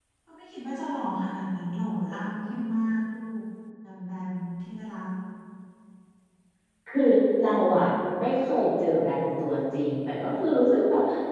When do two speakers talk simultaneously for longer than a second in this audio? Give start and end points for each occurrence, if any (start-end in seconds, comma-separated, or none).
none